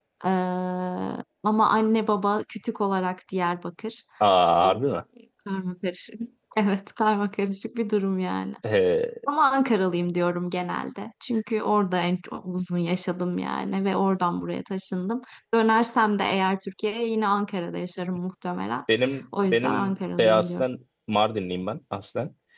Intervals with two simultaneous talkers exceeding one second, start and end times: 19.4-20.6

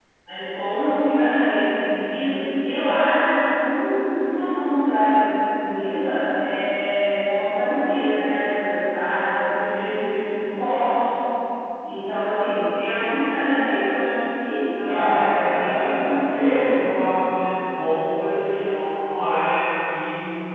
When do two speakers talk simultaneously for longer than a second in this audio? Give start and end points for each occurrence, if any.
14.8-16.6

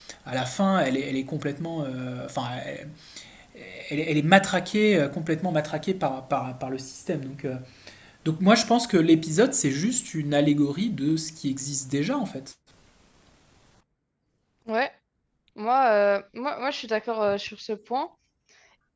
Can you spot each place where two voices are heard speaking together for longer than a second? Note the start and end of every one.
none

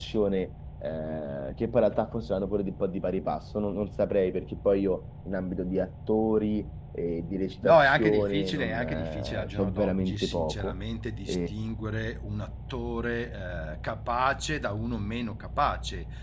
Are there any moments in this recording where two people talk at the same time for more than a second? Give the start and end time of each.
7.6-10.7

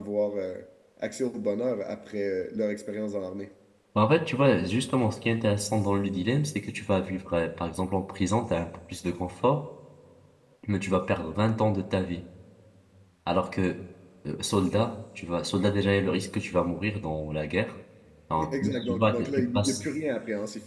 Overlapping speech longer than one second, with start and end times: 18.5-19.8

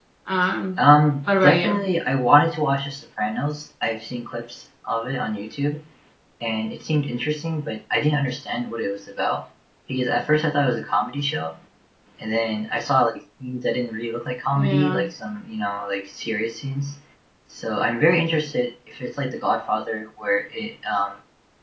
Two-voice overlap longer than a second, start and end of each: none

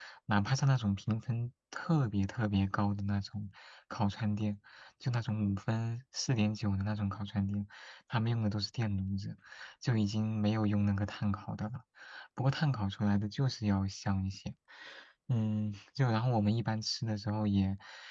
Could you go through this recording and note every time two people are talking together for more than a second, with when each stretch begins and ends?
none

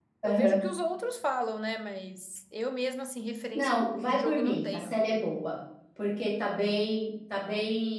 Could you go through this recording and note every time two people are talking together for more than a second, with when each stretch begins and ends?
3.5-5.0

